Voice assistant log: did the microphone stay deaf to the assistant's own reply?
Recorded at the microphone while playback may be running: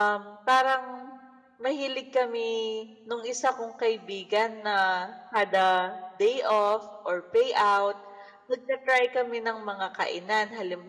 Yes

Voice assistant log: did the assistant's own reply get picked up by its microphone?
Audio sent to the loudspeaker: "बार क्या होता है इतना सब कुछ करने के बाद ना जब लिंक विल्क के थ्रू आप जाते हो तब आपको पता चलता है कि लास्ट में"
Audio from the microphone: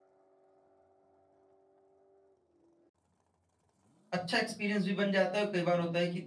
No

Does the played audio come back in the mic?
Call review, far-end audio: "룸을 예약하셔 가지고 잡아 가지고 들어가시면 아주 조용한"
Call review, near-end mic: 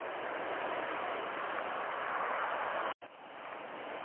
No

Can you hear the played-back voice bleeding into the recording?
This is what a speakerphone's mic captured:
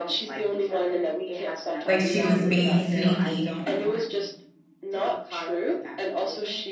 Yes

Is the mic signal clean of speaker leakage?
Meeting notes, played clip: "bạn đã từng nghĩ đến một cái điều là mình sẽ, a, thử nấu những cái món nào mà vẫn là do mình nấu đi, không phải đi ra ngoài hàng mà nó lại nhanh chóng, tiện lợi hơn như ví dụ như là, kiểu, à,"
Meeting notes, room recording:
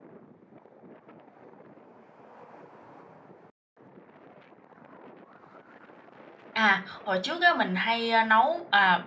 Yes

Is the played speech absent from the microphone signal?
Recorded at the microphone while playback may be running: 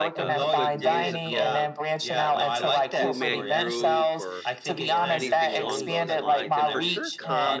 No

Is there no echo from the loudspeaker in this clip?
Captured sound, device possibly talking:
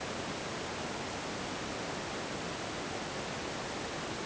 Yes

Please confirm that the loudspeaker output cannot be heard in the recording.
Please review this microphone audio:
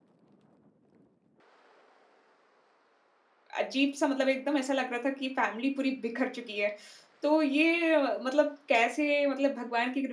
Yes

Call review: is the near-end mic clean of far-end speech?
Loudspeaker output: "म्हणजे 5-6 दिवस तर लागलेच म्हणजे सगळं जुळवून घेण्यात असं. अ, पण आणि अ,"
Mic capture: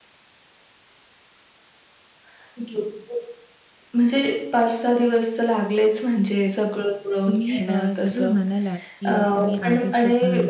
No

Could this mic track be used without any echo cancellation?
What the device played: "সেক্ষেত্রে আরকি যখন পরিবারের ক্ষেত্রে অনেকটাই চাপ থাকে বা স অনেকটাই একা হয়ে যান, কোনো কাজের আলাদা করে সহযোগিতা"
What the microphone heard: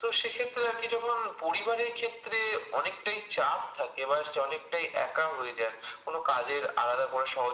No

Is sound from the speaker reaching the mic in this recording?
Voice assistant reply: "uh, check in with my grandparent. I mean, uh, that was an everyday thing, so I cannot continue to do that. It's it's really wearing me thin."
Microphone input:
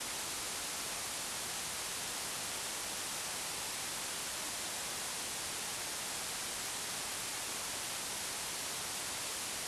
No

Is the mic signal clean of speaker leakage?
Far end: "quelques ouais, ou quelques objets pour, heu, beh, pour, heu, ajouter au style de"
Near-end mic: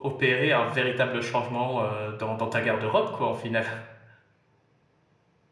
Yes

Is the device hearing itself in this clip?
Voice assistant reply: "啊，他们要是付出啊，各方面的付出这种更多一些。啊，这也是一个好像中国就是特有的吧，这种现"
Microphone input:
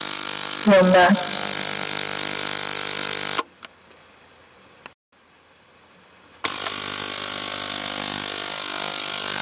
No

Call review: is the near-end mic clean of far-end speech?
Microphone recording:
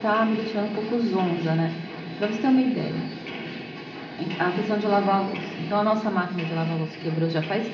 No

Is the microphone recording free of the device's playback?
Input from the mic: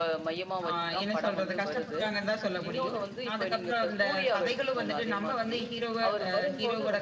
No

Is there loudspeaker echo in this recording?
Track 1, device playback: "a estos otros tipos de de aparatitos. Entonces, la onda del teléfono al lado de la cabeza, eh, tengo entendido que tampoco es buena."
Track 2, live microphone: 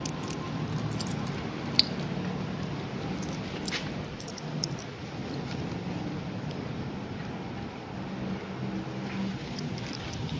No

